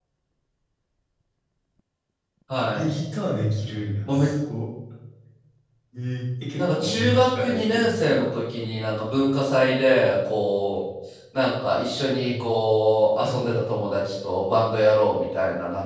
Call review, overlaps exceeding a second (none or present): present